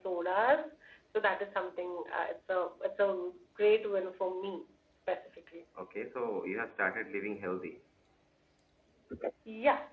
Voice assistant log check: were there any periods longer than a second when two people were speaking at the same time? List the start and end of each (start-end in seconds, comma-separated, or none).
none